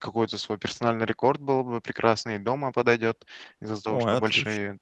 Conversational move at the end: listening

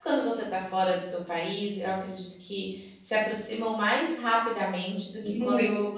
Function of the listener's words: listening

